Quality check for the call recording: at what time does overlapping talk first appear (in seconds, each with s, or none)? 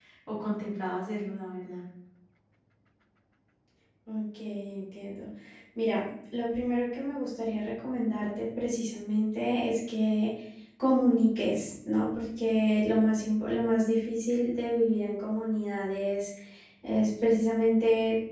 none